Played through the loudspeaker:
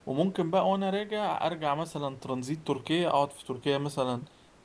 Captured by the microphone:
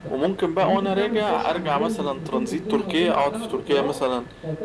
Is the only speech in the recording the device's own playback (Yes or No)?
No